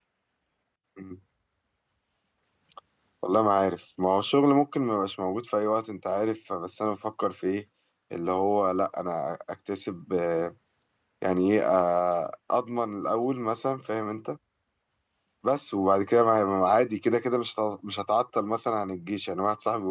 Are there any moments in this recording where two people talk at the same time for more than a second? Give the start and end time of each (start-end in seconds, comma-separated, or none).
none